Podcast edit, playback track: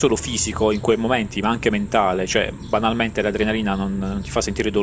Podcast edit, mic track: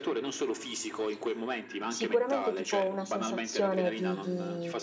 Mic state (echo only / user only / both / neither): both